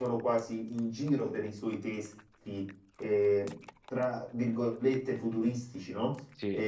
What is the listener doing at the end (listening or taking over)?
listening